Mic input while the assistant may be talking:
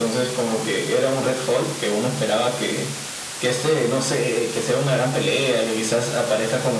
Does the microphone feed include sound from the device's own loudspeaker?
Yes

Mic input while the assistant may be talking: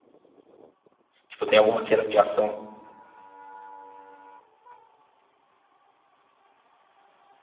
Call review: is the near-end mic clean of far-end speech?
Yes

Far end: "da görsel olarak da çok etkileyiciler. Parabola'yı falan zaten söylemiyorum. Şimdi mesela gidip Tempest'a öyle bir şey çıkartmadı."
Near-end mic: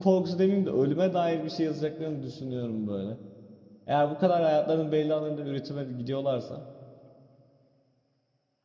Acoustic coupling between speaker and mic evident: No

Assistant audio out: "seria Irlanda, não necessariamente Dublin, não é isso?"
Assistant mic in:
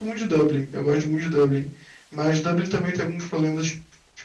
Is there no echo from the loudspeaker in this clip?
Yes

